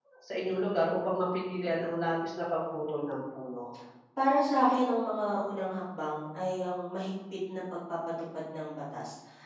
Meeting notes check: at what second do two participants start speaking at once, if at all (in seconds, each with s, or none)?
none